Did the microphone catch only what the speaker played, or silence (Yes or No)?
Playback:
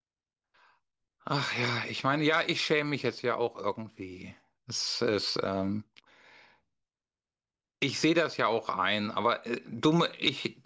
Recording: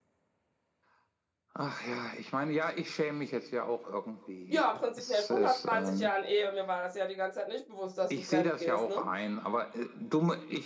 No